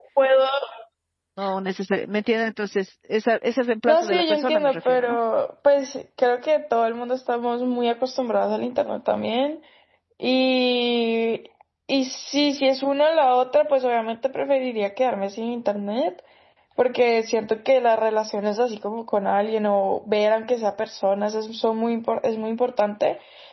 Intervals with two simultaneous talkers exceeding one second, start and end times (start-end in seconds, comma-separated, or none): 3.9-5.2